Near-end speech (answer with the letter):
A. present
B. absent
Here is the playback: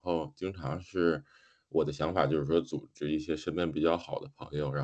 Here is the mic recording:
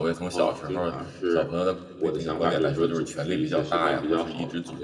A